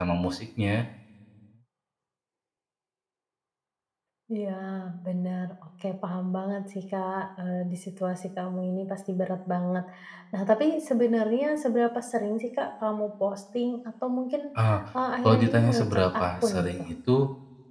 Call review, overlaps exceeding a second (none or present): present